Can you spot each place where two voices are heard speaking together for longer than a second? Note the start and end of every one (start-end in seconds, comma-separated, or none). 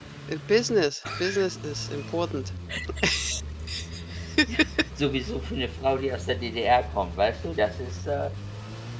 none